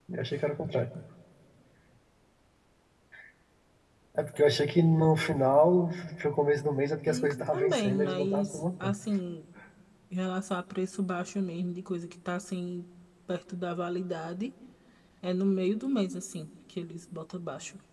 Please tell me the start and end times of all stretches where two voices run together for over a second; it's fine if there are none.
7.1-8.9

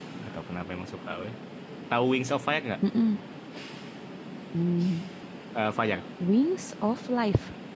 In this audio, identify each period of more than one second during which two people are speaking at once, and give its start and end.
none

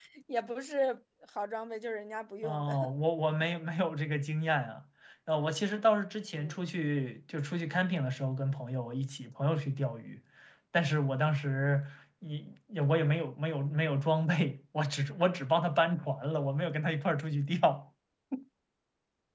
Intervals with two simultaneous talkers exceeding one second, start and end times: none

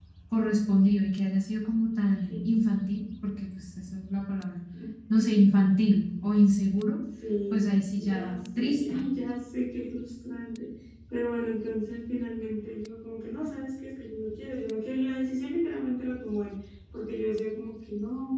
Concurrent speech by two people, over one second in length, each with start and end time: 7.5-9.1

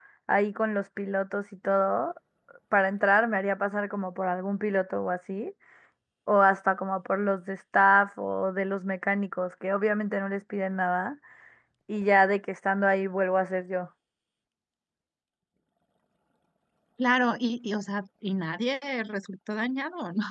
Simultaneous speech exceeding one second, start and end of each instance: none

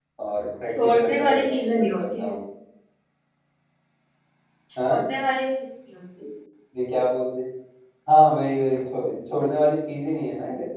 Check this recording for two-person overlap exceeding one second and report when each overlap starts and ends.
0.8-2.3

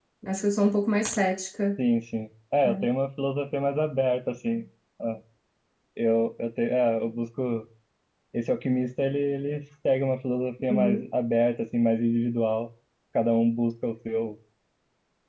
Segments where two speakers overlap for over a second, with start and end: none

